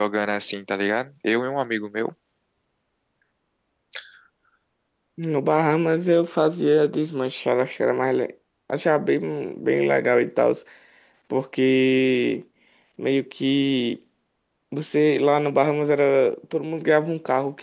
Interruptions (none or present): none